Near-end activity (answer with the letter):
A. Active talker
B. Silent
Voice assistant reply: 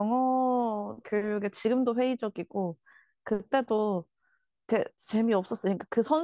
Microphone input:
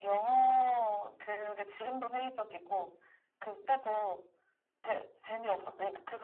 B